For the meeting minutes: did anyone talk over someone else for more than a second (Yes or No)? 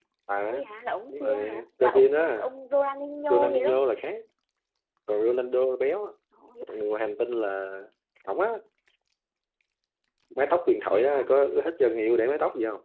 Yes